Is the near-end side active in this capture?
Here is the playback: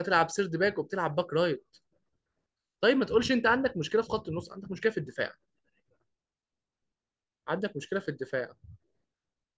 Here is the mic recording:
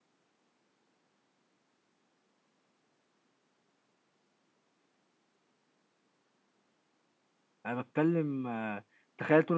Yes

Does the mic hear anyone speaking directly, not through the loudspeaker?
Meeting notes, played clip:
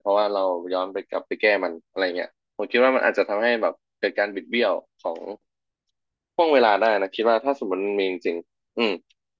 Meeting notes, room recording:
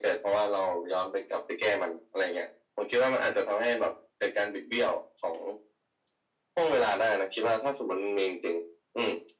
No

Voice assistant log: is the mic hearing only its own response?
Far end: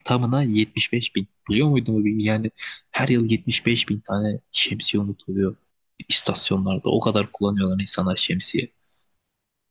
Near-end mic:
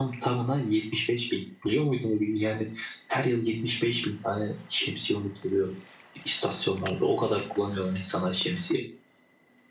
Yes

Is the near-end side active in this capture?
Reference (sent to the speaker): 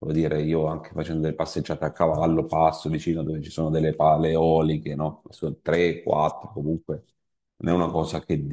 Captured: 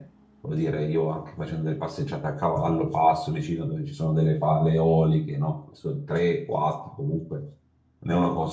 No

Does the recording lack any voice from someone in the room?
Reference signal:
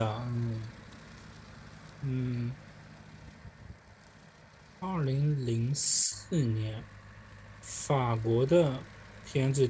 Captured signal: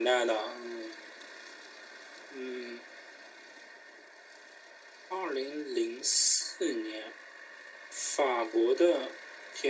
Yes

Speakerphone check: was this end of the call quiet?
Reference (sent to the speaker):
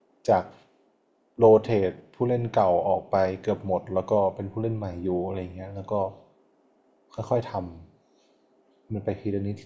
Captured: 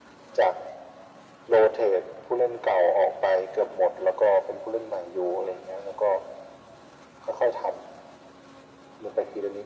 Yes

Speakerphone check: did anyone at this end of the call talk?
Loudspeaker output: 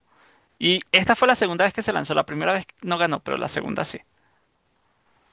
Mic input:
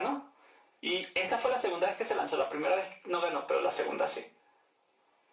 No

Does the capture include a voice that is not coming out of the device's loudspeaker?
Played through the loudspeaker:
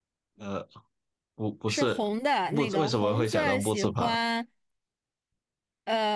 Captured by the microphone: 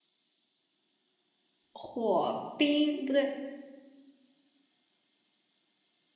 Yes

